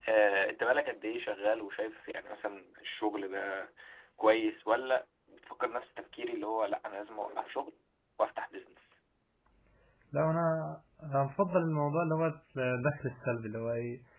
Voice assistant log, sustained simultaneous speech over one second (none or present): none